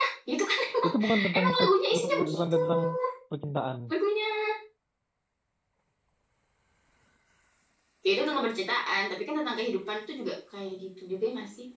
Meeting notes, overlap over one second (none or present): present